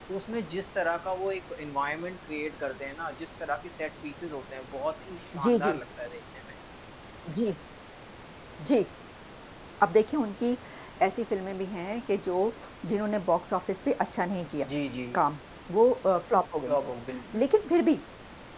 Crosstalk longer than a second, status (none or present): none